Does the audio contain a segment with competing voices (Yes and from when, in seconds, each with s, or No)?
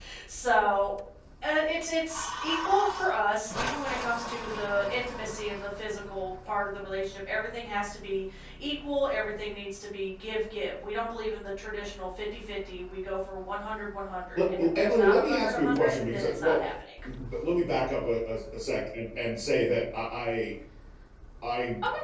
Yes, from 14.3 s